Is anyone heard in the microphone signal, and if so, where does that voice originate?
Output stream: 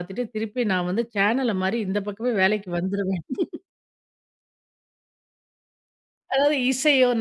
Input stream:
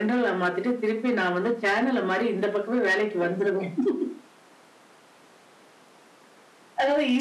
echo only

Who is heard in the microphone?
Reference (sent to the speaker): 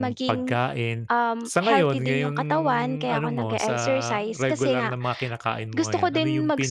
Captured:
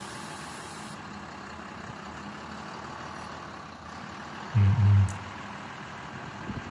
user only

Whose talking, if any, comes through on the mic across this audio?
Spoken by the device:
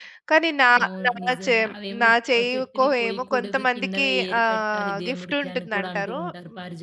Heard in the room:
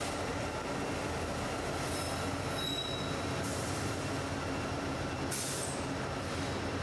neither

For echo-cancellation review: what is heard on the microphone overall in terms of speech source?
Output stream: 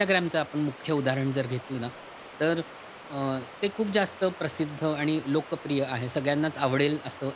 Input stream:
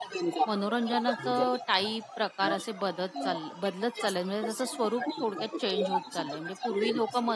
both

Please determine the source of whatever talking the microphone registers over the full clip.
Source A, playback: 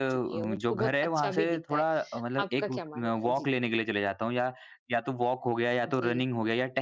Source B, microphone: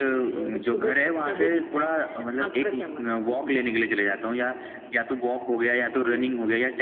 echo only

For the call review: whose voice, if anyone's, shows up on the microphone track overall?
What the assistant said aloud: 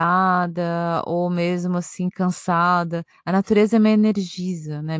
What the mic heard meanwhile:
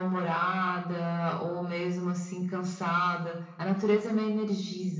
echo only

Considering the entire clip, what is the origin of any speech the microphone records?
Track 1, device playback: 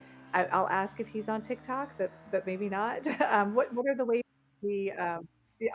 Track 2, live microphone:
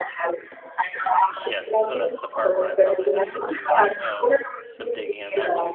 both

